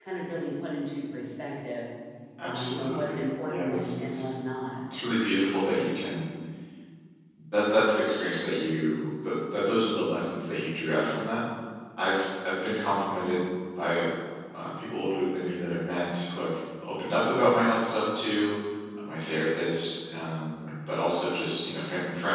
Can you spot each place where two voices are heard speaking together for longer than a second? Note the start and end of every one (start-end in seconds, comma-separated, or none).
2.4-4.3